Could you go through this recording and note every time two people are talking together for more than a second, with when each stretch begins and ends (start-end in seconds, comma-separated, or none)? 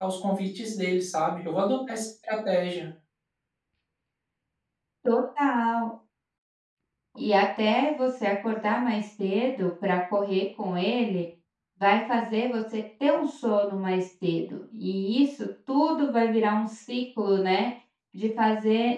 none